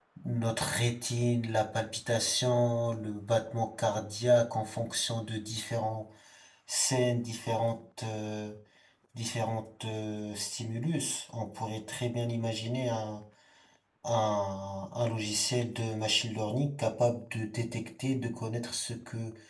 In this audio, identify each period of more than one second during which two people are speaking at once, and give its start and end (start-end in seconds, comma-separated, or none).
none